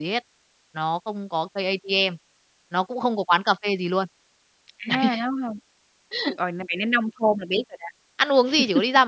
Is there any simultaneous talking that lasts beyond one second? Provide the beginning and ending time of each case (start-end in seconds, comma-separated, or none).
none